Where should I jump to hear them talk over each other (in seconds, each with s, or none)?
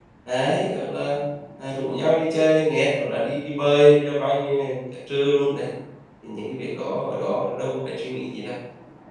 none